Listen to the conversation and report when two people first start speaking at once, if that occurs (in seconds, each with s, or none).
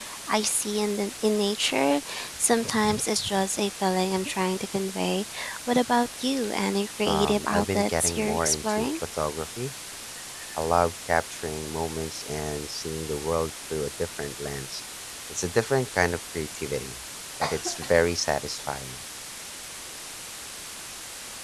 7.0 s